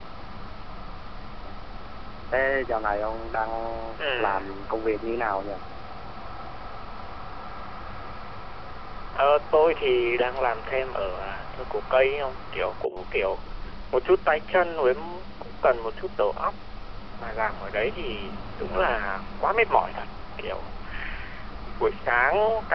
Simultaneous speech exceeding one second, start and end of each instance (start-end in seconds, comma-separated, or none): none